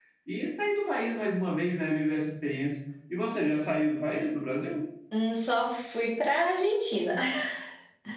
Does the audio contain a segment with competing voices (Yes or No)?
No